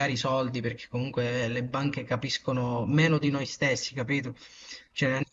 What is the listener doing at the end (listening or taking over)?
listening